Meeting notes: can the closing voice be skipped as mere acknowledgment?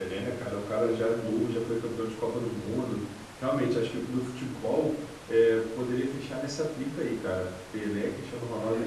No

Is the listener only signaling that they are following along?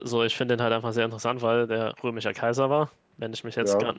Yes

